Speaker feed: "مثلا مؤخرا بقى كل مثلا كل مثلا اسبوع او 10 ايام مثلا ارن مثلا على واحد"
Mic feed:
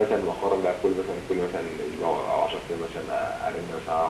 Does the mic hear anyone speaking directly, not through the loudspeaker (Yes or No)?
No